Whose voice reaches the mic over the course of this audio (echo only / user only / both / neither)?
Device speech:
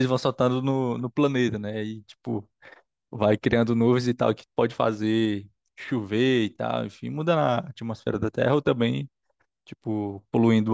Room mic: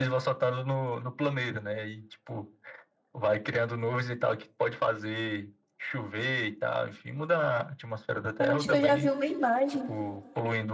both